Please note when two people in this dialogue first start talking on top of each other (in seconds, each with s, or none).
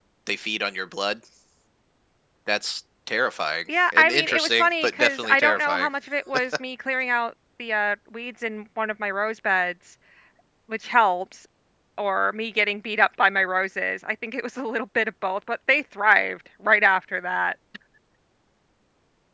3.7 s